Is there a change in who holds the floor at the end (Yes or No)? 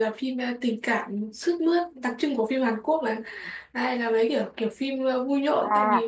Yes